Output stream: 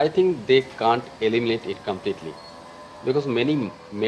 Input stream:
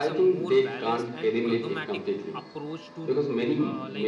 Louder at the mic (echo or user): echo